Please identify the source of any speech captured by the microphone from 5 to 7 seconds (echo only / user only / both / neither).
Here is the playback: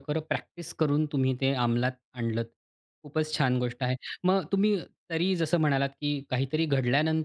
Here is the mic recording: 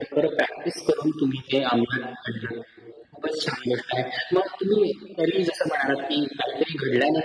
echo only